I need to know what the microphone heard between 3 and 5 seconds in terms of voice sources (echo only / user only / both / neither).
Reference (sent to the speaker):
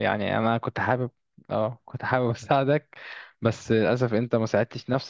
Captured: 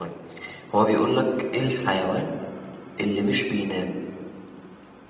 user only